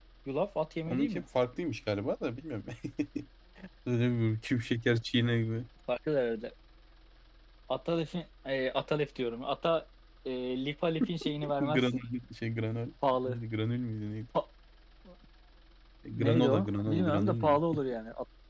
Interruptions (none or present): present